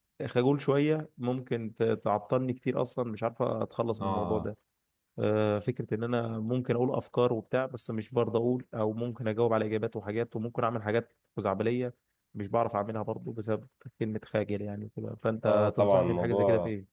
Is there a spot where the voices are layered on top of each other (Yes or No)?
Yes